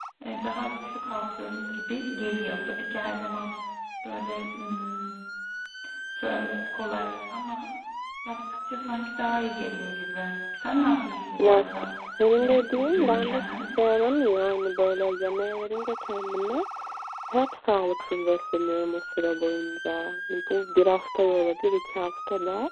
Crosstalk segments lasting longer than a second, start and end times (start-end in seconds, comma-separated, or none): 12.4-13.6